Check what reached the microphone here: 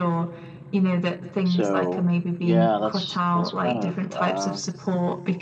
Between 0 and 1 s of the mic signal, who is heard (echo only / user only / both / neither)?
echo only